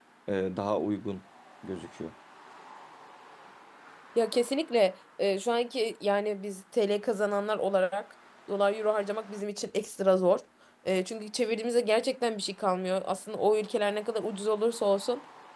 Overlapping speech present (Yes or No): No